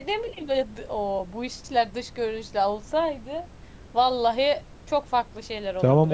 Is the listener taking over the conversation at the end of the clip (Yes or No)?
Yes